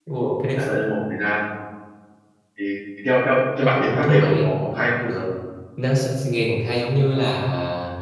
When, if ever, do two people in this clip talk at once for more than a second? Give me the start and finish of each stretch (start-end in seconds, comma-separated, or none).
3.6-4.9